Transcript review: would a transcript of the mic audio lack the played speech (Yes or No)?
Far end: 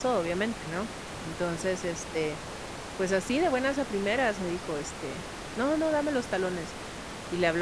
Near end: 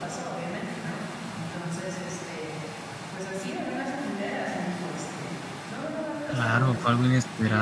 No